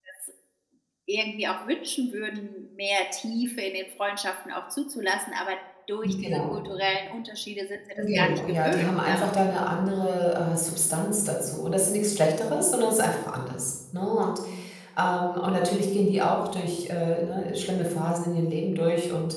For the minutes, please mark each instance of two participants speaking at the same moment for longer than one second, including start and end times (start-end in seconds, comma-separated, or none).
8.0-9.3